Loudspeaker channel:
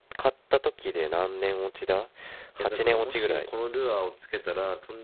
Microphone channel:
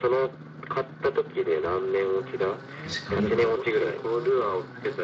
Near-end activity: present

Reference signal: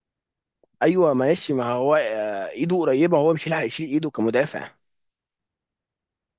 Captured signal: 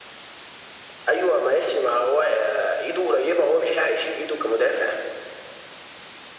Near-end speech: none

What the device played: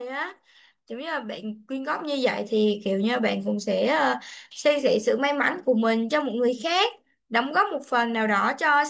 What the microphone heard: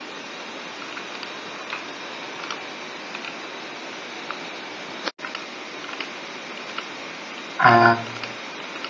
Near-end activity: present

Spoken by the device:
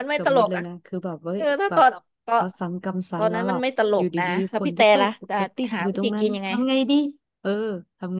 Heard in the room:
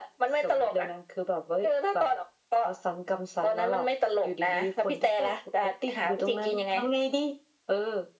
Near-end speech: none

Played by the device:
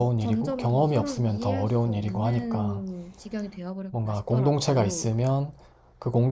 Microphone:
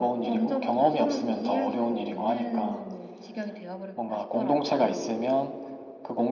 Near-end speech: none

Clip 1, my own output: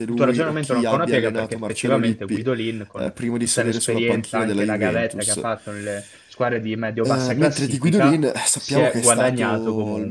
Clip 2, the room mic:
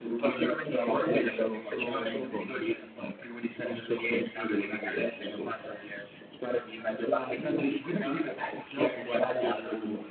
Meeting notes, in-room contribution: present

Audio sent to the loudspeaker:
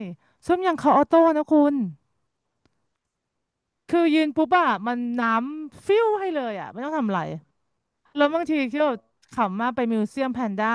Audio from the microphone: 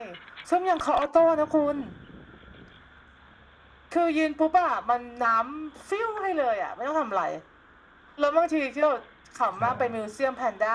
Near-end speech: present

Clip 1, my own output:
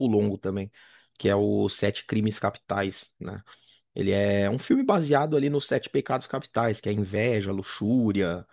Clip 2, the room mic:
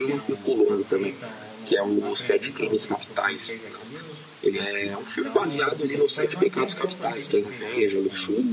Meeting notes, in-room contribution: present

